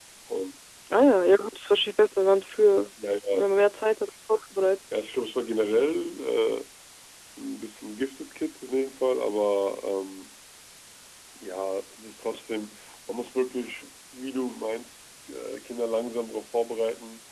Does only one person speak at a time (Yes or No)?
Yes